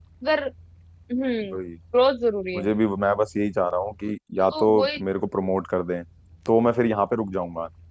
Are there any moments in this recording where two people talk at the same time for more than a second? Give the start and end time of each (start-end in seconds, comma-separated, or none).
none